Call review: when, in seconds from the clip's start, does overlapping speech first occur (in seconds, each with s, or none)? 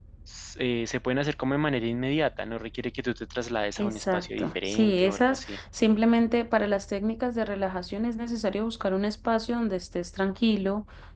3.8 s